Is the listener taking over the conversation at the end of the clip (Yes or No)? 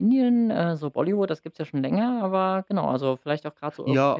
Yes